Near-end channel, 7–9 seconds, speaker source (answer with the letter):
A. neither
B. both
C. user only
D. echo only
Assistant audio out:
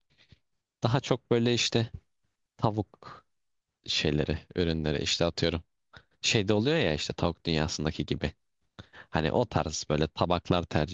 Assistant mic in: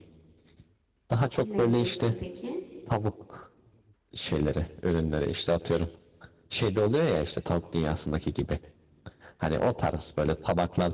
D